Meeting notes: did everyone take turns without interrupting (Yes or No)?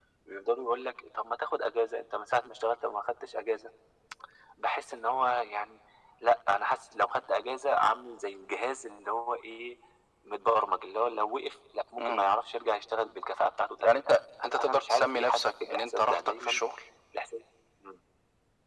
No